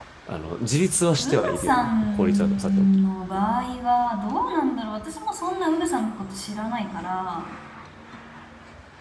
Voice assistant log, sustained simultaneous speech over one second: present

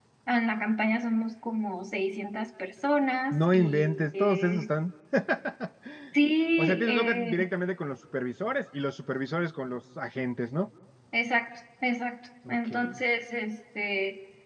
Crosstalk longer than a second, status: present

